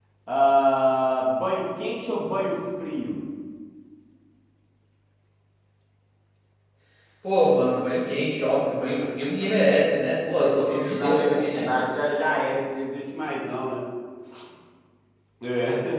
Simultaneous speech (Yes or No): Yes